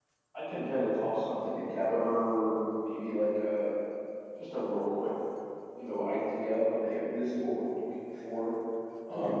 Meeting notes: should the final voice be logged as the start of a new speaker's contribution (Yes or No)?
No